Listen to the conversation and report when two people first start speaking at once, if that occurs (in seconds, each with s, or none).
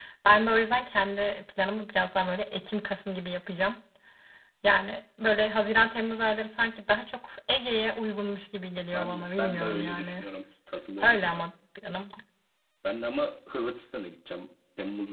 8.9 s